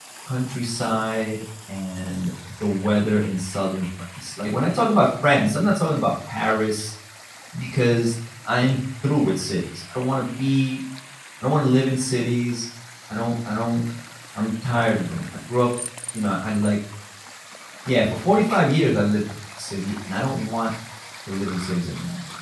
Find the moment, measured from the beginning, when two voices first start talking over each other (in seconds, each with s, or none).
none